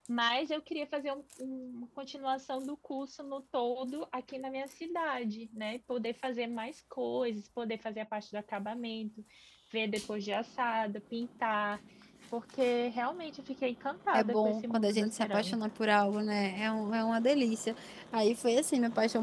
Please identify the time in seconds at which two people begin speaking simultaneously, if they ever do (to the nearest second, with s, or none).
14 s